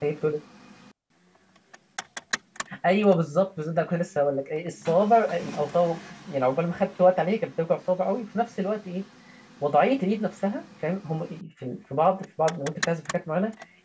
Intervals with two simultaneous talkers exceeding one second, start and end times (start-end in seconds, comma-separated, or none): none